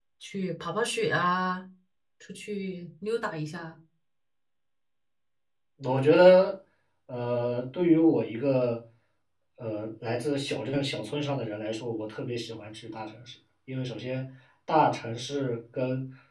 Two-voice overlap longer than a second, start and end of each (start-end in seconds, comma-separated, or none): none